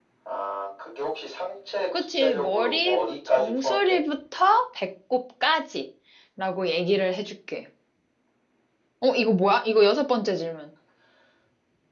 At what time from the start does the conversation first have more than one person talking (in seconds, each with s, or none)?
1.9 s